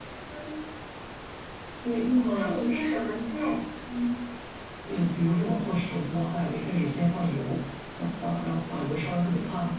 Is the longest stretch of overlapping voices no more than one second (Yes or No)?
Yes